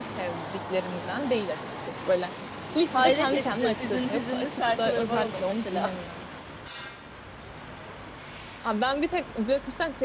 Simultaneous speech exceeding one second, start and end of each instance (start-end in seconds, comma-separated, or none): 2.9-5.9